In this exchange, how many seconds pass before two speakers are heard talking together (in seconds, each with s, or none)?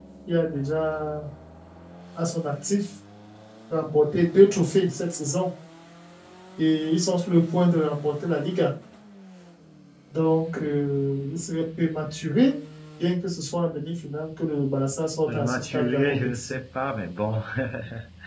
15.3 s